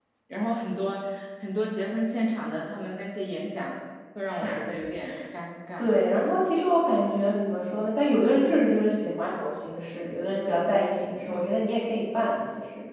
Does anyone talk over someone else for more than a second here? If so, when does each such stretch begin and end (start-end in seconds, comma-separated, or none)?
none